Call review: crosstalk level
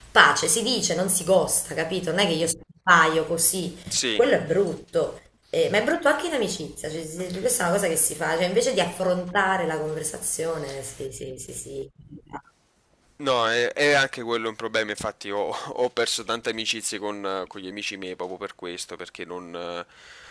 none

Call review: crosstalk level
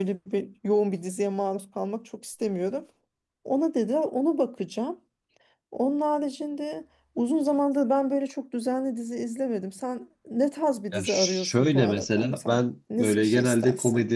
present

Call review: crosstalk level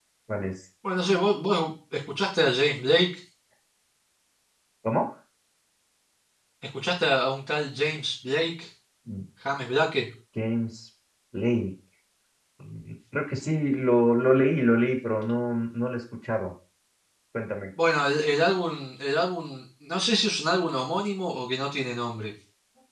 none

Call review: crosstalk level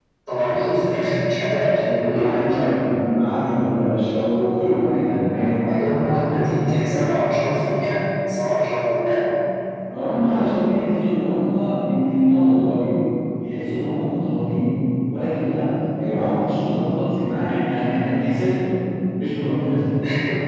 present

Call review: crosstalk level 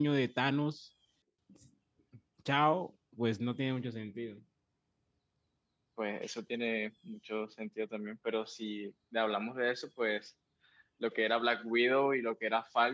none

